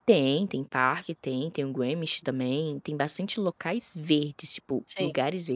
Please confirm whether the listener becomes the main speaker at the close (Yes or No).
No